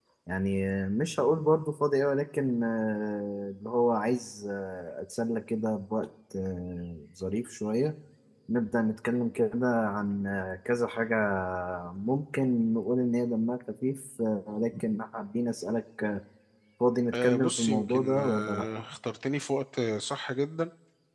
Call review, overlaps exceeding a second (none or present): present